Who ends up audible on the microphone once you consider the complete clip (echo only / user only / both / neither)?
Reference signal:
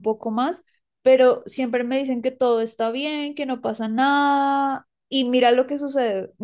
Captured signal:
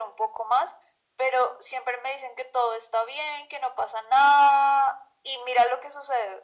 echo only